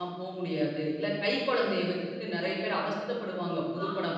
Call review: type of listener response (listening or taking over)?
listening